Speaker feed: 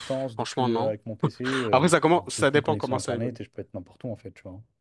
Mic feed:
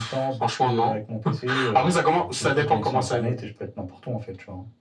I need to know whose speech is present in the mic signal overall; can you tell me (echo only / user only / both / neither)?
echo only